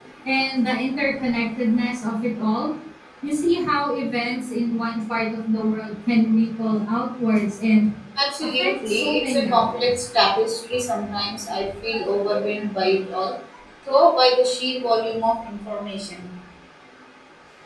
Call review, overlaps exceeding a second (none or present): present